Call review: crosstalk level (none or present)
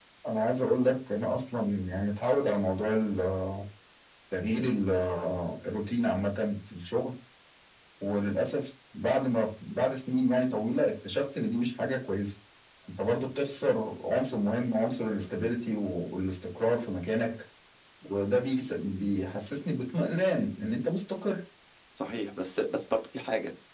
none